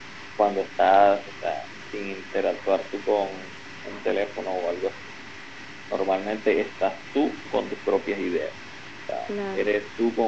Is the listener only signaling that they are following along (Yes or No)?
Yes